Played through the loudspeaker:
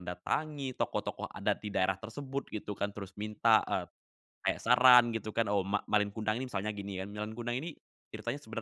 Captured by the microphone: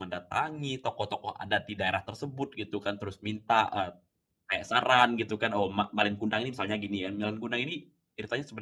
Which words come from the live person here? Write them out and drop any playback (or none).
none